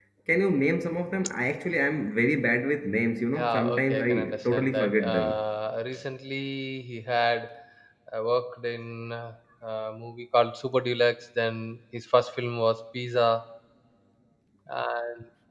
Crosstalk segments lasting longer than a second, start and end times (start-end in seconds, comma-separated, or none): 3.3-5.4